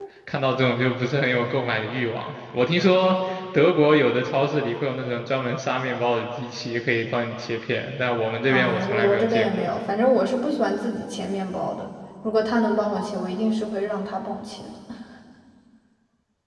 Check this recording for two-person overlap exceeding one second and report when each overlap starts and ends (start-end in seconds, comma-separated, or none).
8.5-9.7